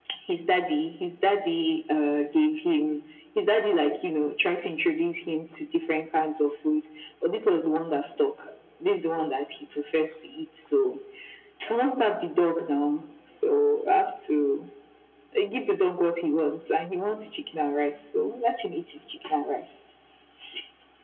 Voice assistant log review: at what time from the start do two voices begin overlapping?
none

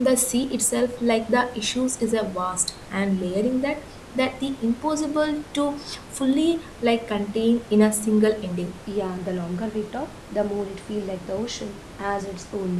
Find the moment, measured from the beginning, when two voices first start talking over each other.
none

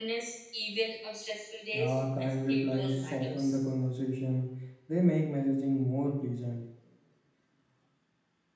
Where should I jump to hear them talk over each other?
1.7 s

